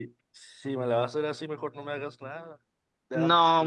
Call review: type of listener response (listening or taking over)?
taking over